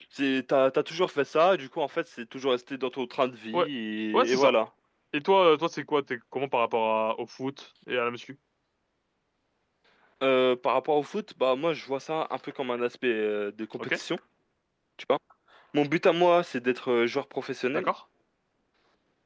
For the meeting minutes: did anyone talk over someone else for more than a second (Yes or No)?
No